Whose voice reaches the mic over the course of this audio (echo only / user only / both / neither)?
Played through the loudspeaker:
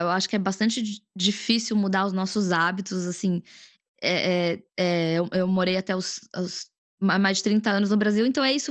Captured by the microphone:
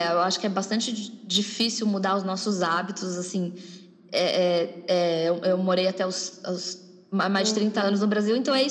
both